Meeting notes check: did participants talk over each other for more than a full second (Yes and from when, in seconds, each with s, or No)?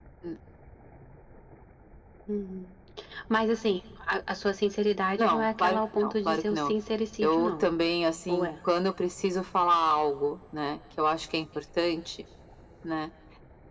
Yes, from 5.2 s